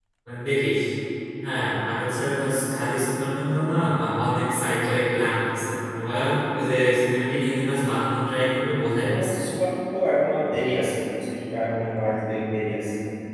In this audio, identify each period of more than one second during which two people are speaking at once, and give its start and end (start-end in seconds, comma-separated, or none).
none